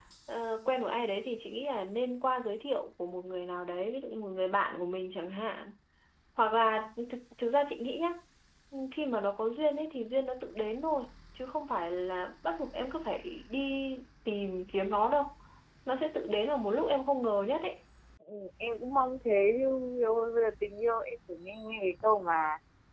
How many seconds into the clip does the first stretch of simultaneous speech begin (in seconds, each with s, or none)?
none